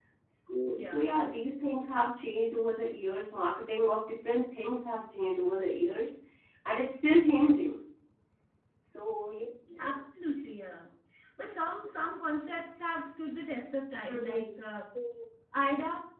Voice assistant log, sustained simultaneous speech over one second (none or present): none